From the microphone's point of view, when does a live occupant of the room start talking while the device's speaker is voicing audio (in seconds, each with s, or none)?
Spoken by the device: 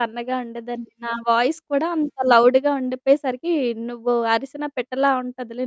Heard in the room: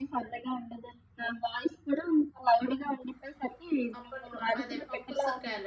4.0 s